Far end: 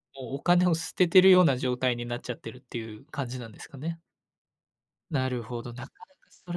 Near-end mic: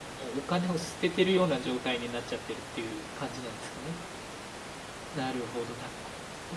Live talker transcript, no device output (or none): none